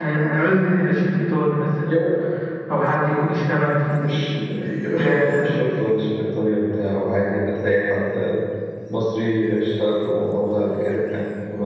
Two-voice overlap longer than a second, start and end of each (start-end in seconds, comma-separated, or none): 4.0-5.5